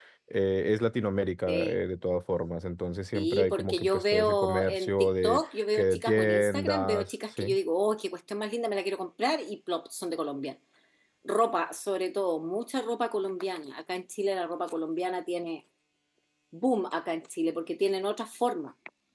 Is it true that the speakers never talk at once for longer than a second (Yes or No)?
No